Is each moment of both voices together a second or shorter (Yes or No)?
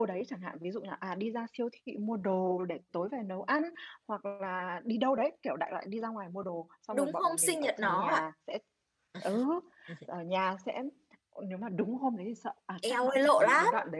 No